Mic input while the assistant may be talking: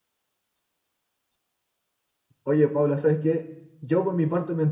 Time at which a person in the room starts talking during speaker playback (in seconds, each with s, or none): 2.4 s